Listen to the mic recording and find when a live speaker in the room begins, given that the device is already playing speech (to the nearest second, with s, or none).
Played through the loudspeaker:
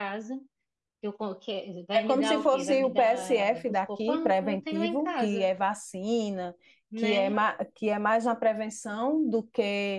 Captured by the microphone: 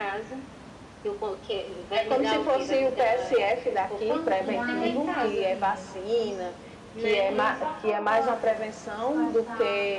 4 s